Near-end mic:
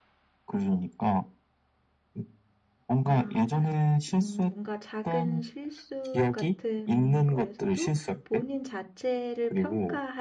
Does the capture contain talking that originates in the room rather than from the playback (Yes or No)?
Yes